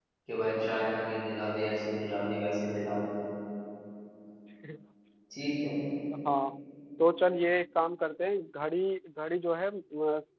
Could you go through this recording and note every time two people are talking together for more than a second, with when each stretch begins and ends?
none

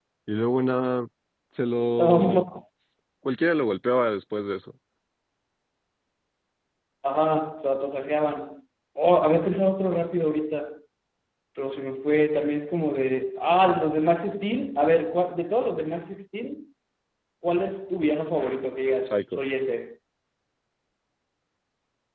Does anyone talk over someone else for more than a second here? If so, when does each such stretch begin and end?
none

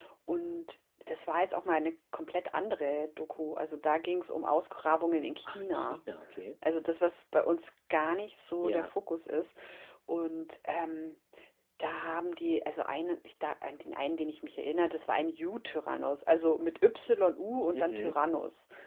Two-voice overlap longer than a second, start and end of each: none

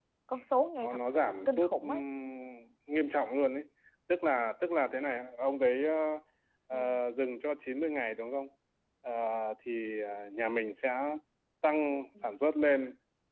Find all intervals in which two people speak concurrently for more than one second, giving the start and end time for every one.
0.8-2.0

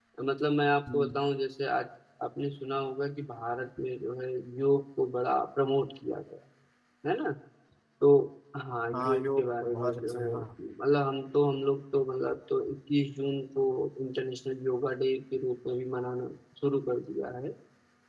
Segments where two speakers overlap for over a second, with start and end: 8.9-10.3

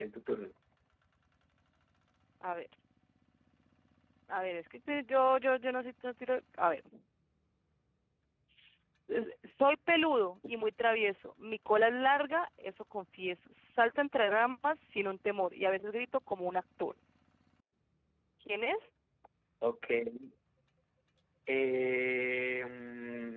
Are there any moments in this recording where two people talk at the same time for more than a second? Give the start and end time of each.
none

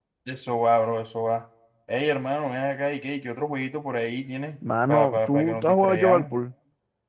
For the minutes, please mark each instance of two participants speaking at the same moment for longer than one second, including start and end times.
4.9-6.3

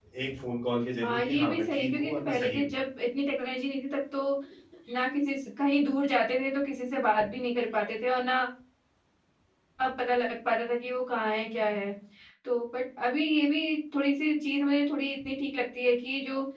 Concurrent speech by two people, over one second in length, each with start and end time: 1.0-2.7

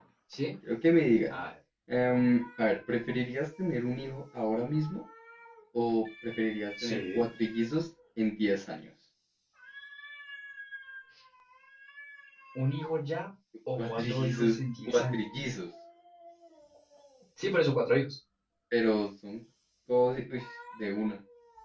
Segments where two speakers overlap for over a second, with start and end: 13.8-15.2

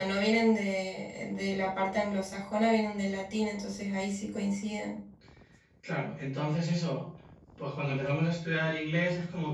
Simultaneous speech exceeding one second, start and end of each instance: none

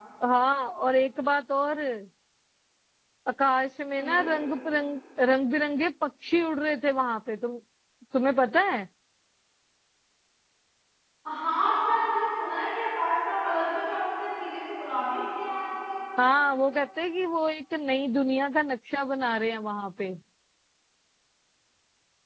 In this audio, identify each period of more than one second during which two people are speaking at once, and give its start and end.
none

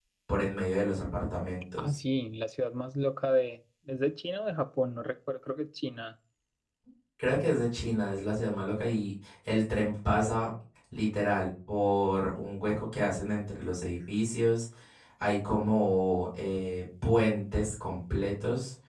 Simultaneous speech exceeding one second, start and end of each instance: none

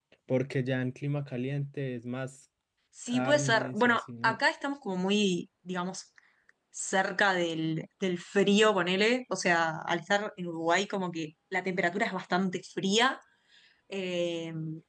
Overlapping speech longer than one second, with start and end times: 3.1-4.4

